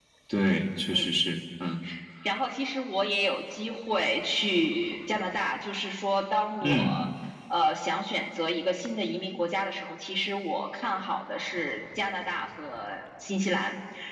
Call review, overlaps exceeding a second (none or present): none